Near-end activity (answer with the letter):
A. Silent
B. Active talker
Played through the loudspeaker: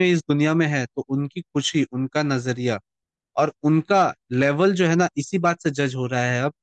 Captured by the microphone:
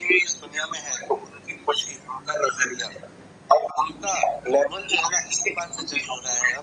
A